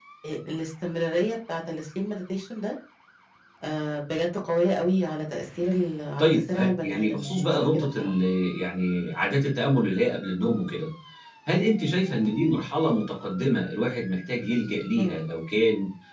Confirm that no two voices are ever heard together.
No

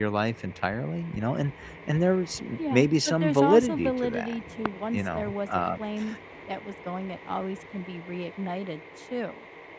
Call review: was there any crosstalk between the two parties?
Yes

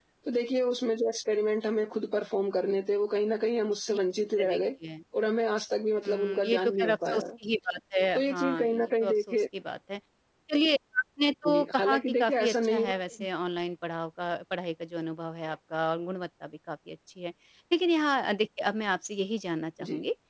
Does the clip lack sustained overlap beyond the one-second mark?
No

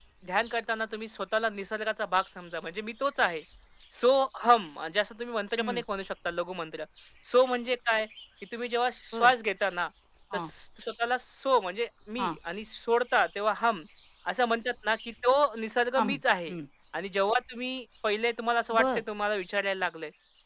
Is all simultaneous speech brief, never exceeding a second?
Yes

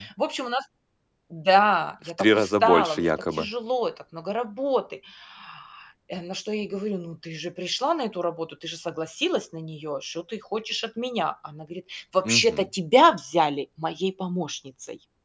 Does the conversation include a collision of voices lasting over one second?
Yes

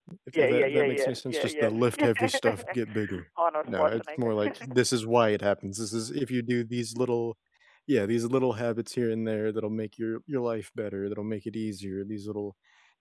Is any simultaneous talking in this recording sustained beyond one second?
Yes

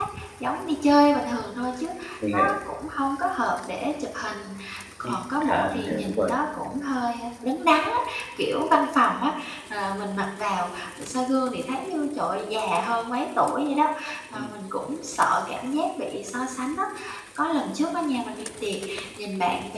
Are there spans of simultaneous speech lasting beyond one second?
Yes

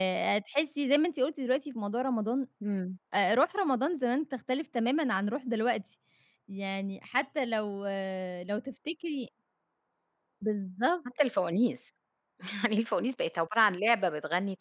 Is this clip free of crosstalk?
Yes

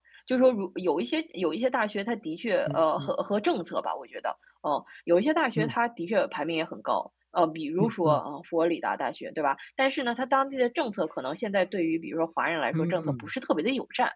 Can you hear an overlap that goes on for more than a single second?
No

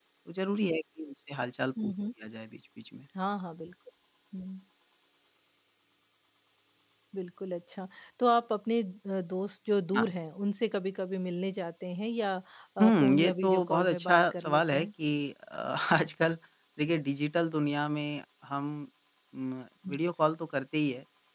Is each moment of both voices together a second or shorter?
No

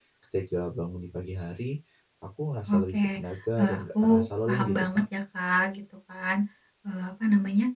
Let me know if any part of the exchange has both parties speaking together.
Yes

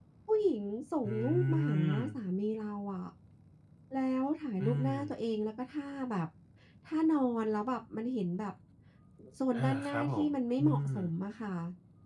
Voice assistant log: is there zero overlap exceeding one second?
No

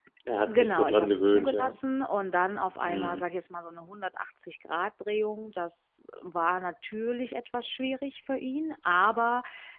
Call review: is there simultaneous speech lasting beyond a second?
Yes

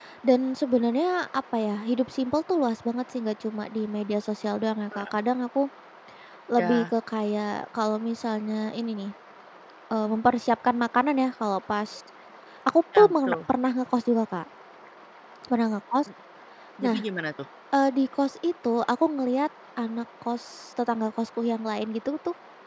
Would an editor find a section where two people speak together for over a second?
No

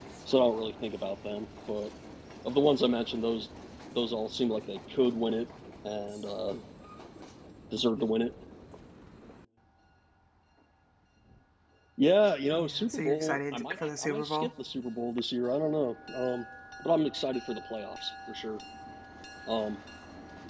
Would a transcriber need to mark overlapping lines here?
Yes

